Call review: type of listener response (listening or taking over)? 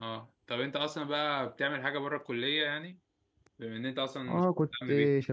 taking over